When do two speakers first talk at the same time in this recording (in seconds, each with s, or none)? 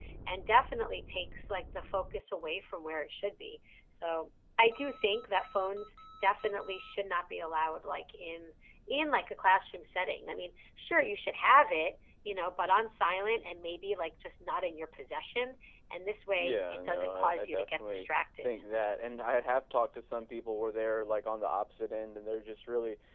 16.3 s